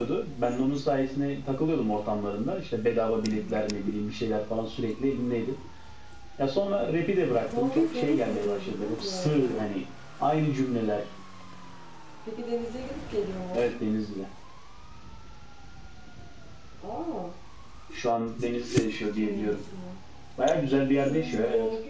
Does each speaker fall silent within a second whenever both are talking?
No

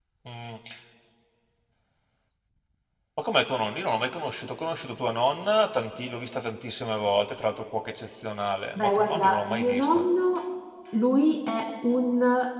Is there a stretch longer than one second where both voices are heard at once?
Yes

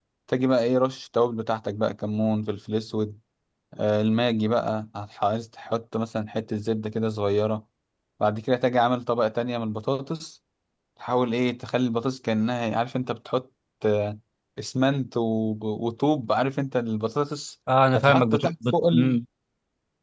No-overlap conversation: No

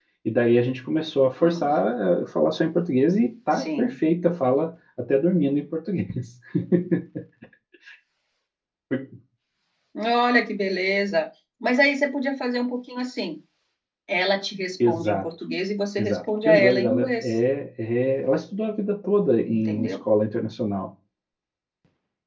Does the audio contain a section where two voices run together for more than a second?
Yes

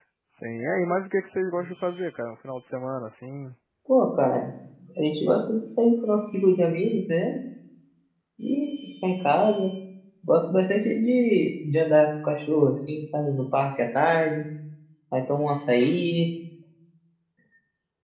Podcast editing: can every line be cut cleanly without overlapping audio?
Yes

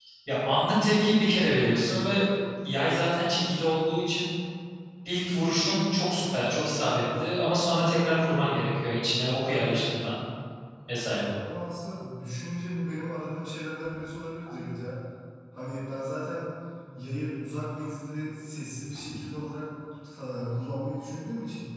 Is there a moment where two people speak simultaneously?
No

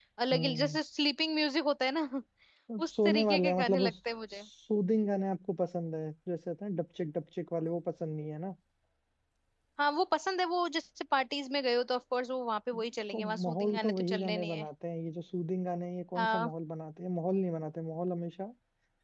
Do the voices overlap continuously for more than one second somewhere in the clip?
Yes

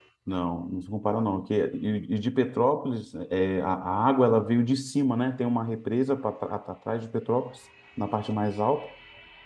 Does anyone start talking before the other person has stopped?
No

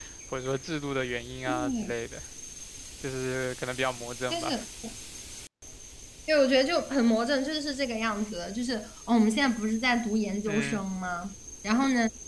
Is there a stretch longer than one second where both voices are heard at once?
No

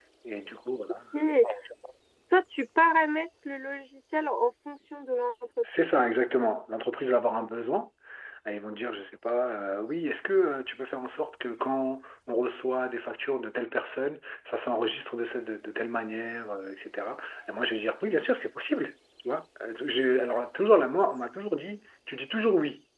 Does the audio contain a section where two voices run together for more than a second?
No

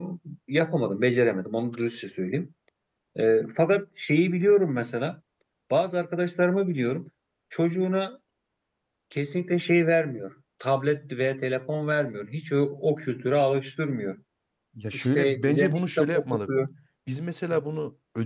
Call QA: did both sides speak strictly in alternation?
No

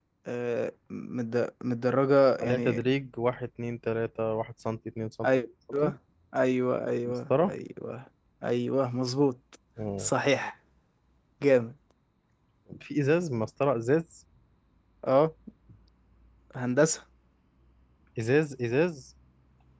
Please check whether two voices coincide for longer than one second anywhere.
No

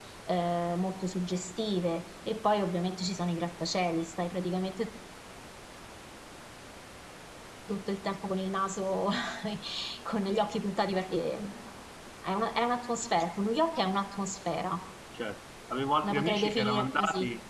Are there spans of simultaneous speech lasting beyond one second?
Yes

